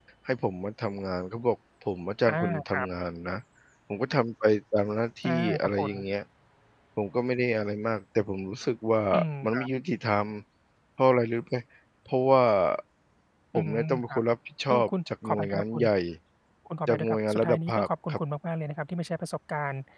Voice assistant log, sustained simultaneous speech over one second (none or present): present